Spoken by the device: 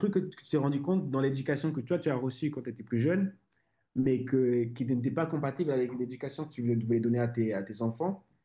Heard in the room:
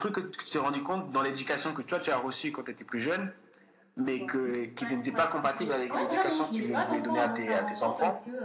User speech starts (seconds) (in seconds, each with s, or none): 4.0 s